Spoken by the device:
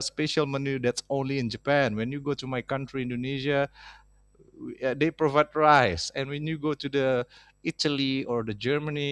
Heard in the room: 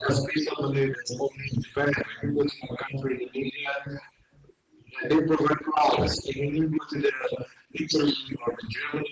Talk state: echo only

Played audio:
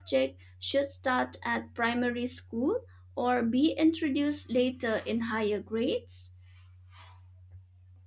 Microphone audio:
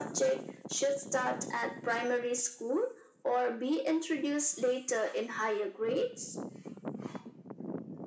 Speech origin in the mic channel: echo only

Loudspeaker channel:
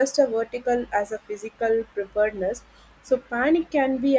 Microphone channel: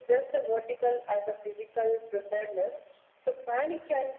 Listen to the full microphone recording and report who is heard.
echo only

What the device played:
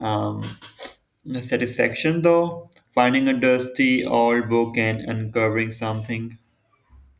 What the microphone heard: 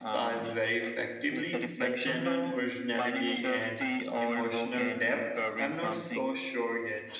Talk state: both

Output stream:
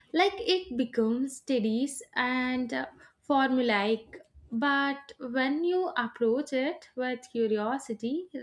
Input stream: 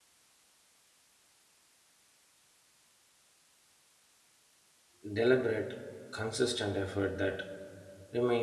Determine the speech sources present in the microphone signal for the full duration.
user only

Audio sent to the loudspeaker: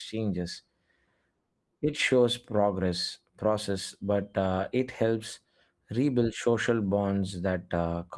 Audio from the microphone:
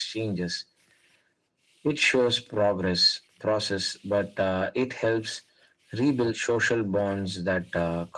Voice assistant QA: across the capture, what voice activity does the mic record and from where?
echo only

